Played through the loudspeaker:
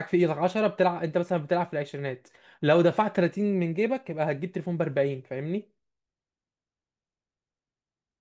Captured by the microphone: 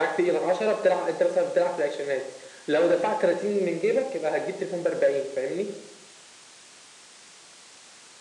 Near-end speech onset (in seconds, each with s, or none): none